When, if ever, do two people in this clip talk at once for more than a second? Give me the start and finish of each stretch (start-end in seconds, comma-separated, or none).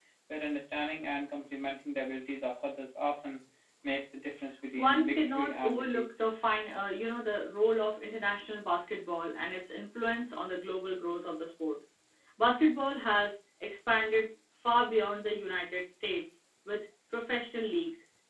4.8-6.1